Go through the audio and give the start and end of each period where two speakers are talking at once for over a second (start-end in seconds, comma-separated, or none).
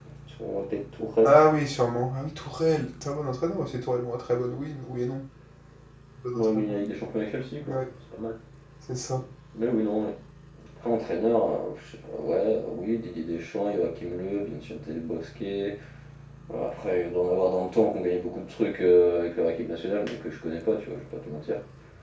none